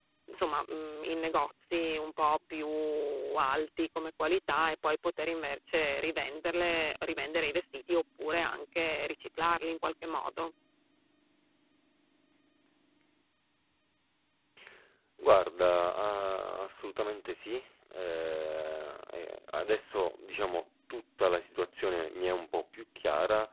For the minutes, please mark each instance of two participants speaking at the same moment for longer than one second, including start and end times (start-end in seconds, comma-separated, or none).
none